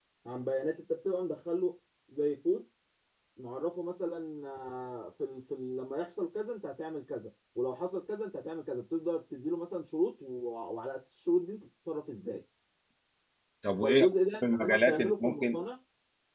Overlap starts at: 13.8 s

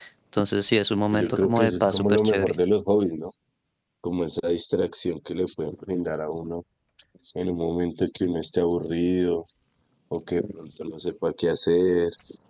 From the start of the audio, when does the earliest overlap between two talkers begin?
1.1 s

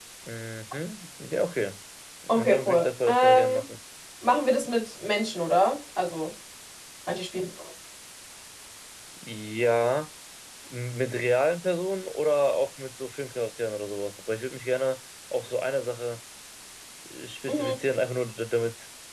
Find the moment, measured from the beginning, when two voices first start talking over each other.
2.3 s

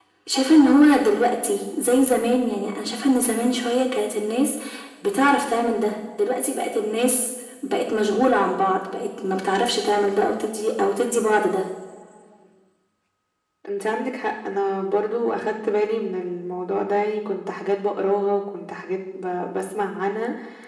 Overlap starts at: none

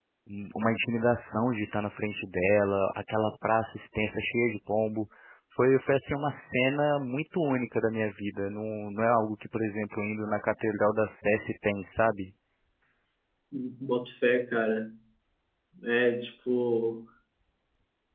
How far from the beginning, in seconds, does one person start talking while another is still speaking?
none

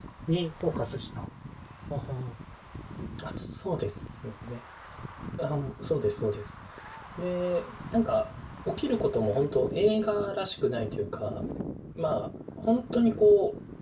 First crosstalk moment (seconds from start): none

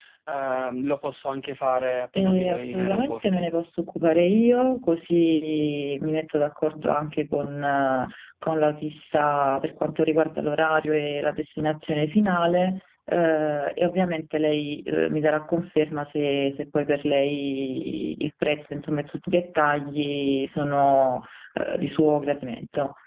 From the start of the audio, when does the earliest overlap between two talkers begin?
2.1 s

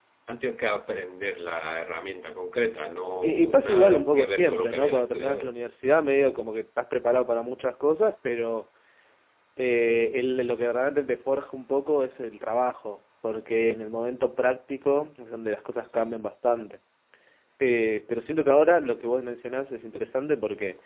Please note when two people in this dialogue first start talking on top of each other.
3.2 s

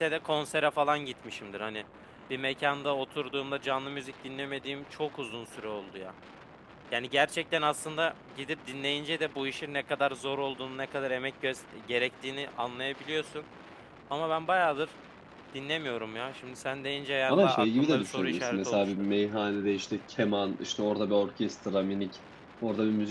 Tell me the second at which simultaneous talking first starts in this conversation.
17.3 s

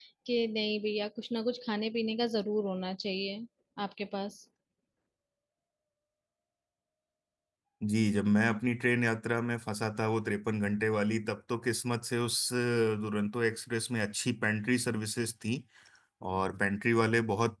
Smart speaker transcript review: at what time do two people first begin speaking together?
none

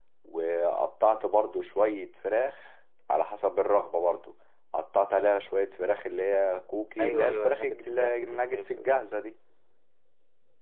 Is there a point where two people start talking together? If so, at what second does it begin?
7.0 s

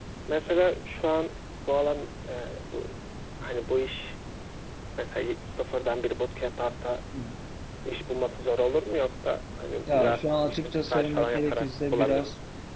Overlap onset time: 9.9 s

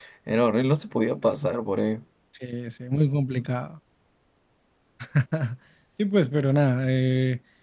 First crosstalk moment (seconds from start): none

